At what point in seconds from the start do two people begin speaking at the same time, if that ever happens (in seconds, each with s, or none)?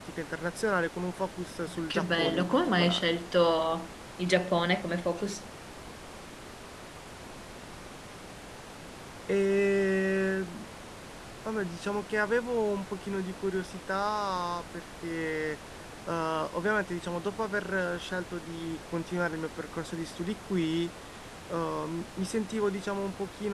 1.7 s